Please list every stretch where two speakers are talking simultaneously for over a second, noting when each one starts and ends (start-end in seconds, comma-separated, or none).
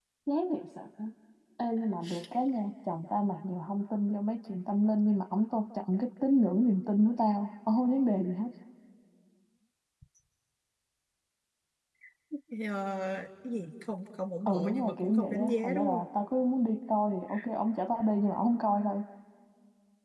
14.5-16.0